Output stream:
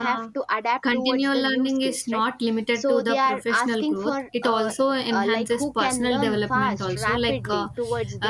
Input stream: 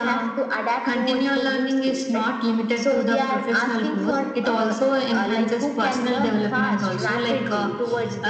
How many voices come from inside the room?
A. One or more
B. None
B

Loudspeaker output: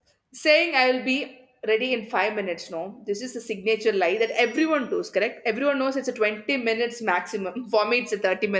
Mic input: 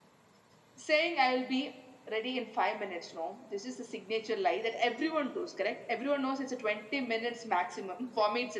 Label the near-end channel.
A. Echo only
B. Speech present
A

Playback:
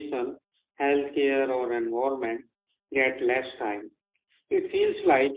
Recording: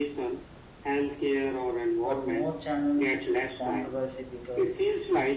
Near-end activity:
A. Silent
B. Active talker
B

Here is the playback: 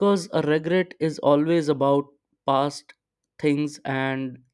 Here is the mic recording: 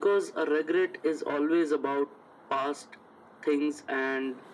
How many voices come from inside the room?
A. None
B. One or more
A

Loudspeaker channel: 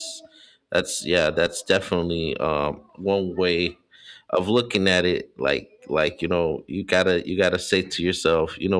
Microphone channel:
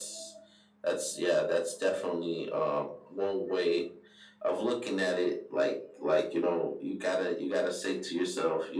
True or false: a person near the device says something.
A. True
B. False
B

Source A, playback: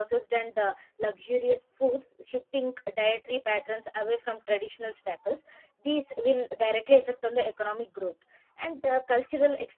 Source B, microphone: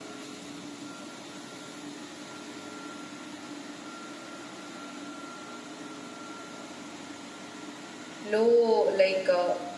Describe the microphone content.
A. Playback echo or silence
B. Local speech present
B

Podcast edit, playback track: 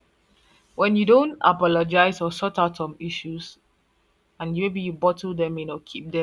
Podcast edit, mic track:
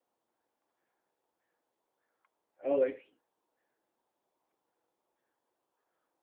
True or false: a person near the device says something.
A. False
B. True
B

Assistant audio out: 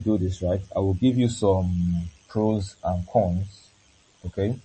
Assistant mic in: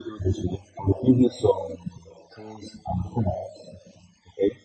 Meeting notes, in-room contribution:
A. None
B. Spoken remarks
A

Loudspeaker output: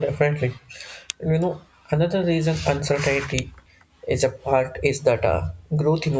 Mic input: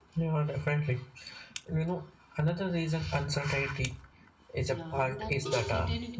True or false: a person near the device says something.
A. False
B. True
B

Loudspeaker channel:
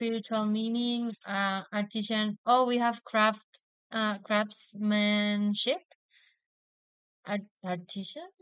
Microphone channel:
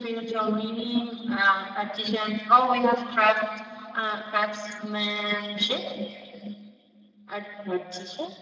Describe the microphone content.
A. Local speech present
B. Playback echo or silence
B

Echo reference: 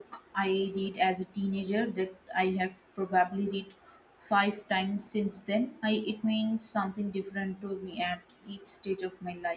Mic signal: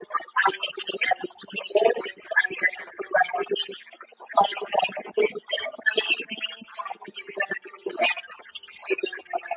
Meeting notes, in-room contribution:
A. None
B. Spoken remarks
A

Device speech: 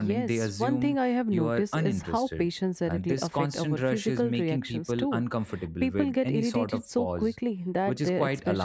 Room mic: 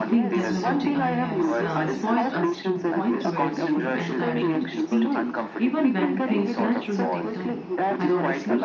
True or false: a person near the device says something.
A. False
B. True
B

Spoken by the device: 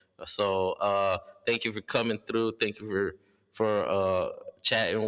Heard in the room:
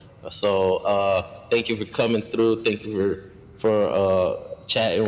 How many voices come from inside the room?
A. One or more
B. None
B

